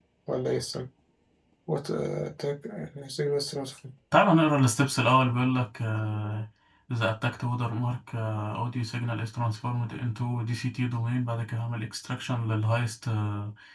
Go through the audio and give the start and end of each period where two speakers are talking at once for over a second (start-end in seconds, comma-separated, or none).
none